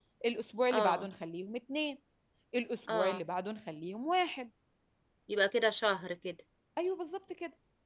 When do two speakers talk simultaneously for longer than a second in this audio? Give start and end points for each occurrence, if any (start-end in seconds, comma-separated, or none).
none